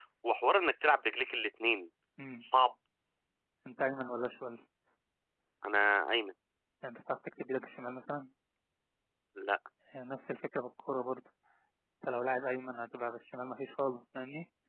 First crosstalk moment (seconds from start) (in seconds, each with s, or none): none